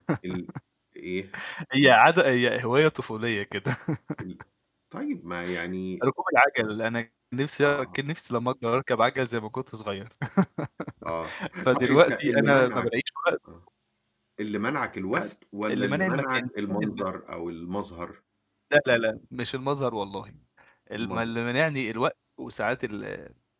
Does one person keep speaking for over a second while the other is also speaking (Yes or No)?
Yes